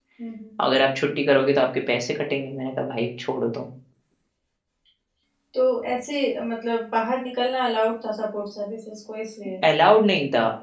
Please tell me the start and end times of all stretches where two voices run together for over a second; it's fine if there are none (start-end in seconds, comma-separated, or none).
none